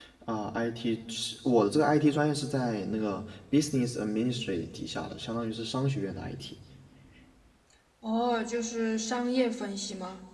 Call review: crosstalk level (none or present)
none